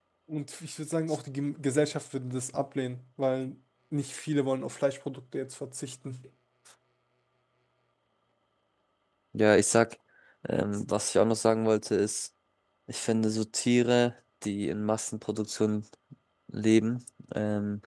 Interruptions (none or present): none